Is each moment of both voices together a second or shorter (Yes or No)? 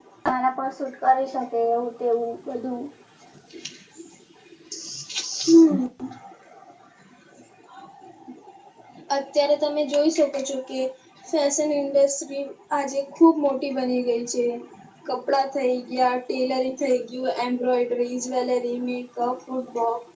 Yes